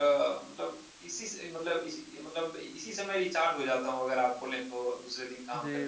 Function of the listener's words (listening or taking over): taking over